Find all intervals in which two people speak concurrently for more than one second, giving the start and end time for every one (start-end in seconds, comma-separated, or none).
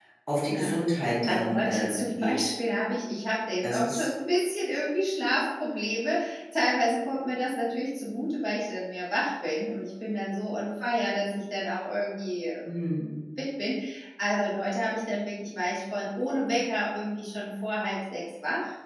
1.3-2.5